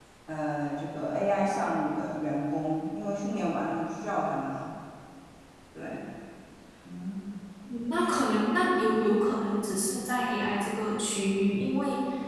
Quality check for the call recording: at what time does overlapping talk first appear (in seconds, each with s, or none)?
none